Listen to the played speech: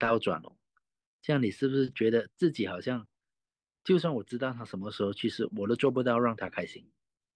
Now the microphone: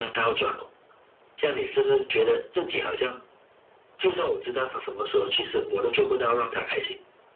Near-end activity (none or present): none